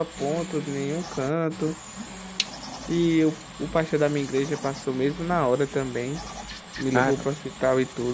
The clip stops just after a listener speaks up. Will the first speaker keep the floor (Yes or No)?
Yes